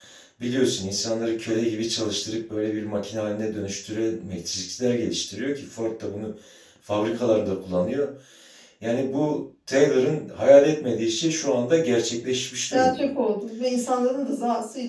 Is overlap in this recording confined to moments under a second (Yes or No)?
Yes